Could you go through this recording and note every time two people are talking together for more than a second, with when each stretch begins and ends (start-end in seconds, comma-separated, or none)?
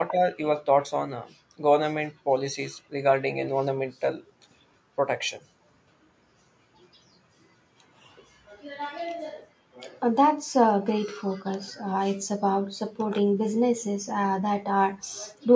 none